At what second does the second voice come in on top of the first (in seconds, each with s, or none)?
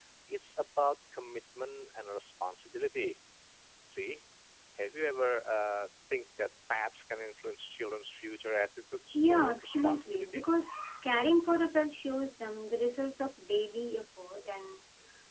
9.1 s